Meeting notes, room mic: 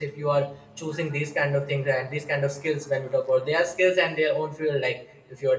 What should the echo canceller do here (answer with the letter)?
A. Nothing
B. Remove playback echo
A